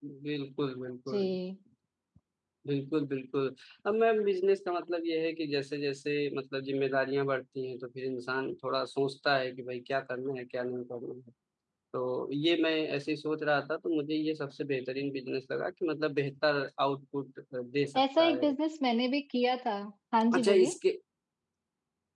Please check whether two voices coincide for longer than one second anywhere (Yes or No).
No